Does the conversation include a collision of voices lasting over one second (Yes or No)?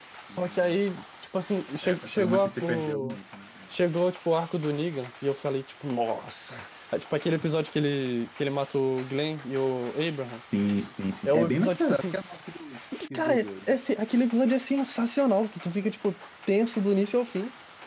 Yes